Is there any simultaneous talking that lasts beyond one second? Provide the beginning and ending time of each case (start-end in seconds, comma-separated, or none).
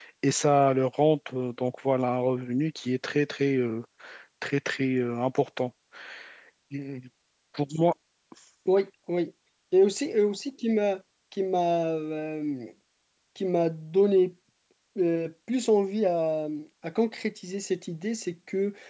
none